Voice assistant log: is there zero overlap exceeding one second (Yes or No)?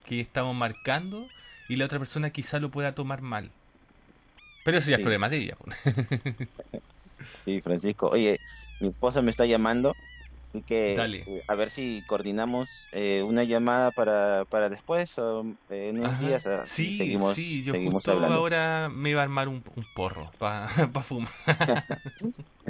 No